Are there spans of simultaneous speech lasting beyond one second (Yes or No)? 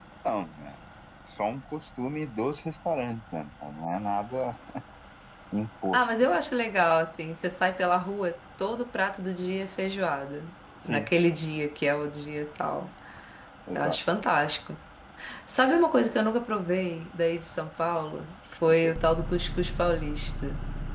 No